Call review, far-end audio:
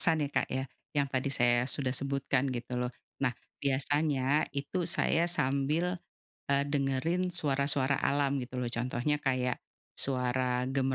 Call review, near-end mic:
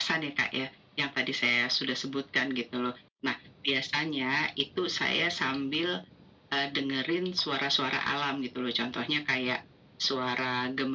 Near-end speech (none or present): none